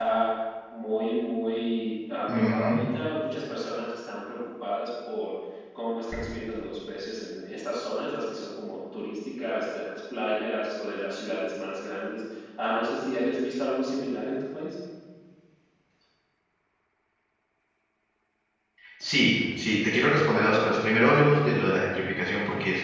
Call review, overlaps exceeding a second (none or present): none